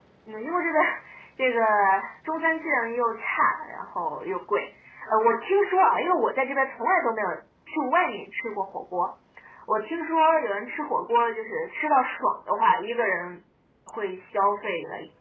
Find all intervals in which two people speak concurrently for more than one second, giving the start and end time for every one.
none

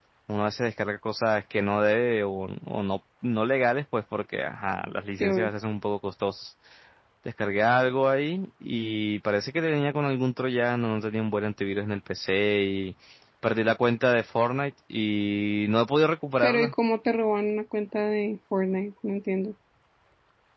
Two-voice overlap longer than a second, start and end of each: none

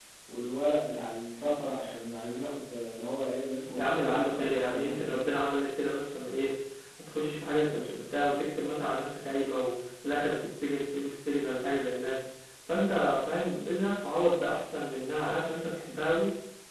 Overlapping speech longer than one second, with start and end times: 3.8-5.3

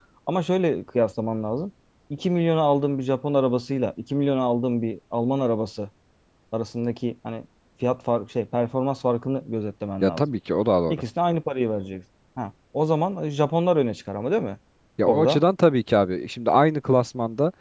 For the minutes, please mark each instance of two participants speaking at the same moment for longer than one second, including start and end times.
none

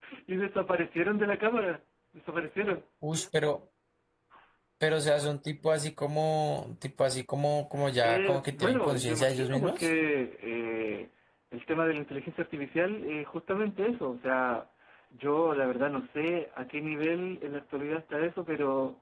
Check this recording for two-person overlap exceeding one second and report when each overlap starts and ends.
8.0-9.9

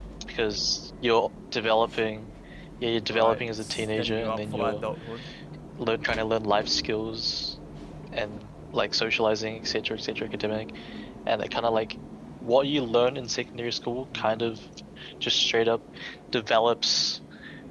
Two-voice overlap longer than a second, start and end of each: 3.1-4.8

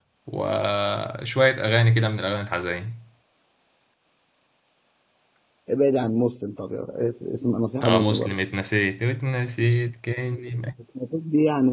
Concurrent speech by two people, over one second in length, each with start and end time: none

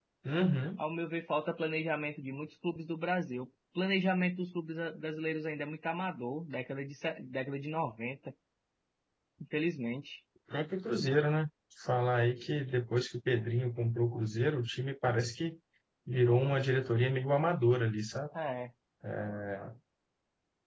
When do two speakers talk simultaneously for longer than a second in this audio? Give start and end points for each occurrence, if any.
none

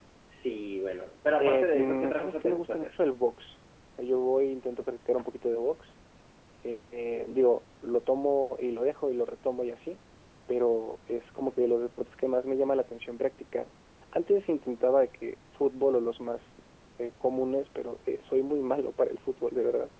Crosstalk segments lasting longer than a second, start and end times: 1.4-2.9

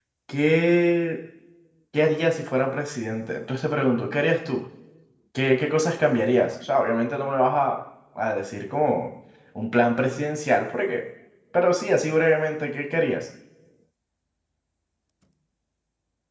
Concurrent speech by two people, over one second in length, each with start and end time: none

